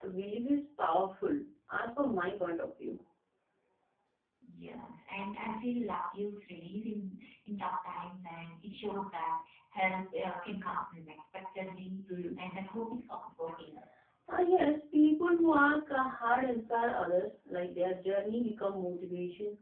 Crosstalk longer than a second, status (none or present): none